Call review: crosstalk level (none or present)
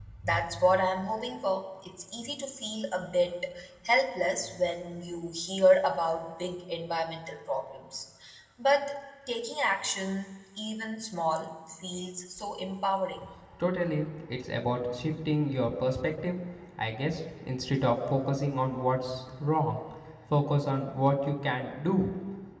none